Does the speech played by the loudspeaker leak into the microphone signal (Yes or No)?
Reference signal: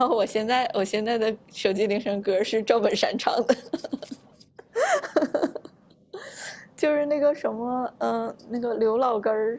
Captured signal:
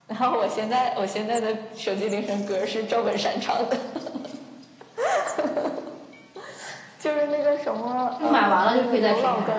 Yes